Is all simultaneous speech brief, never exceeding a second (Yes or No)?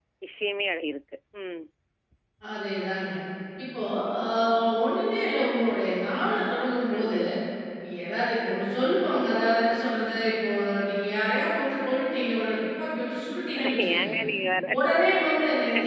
Yes